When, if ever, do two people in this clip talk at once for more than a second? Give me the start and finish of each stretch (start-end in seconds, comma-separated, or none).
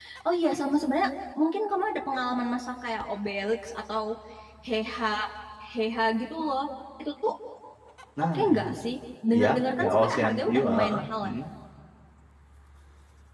9.3-11.3